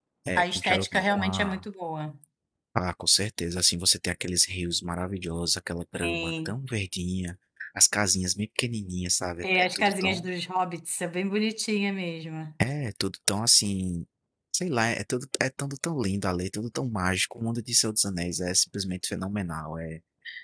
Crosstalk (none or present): present